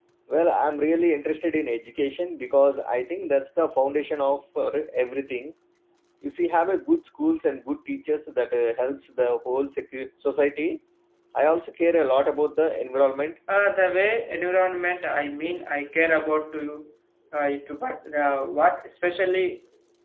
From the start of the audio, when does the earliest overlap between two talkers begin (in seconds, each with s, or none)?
none